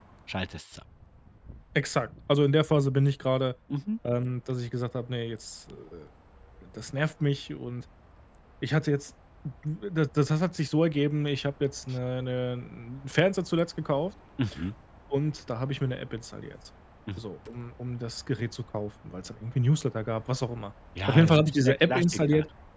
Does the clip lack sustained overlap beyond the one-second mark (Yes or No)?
No